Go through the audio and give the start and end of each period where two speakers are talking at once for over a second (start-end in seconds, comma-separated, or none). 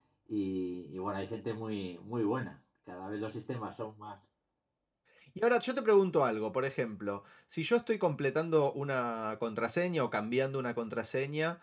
none